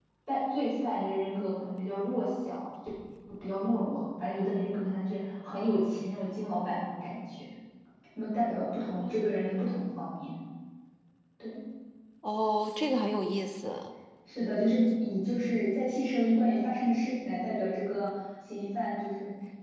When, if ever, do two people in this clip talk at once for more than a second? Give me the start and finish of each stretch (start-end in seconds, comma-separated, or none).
none